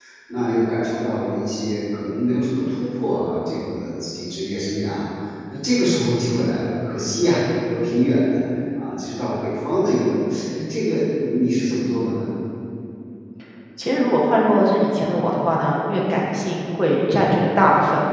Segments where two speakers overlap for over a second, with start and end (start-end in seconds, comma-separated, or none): none